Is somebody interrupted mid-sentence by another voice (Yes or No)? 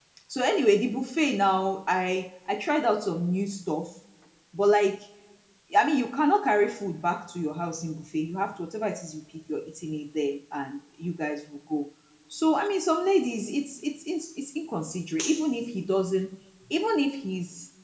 No